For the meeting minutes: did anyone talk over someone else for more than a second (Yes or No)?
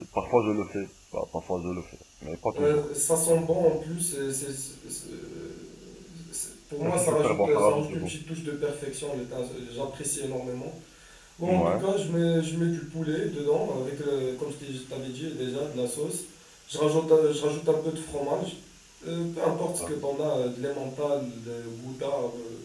Yes